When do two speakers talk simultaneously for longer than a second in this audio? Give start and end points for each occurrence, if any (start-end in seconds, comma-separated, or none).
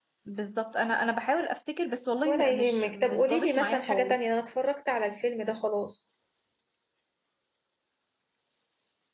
2.2-4.2